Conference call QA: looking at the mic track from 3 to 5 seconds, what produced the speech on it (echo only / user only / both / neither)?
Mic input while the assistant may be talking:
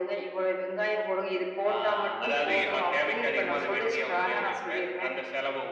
echo only